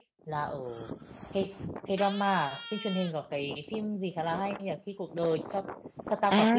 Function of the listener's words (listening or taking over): taking over